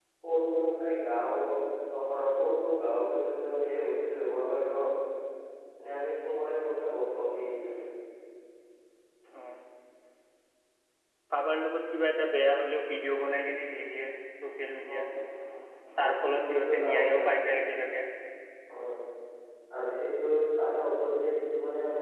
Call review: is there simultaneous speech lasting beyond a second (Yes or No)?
Yes